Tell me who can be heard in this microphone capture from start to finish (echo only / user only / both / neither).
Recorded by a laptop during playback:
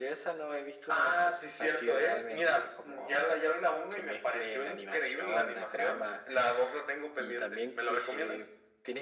echo only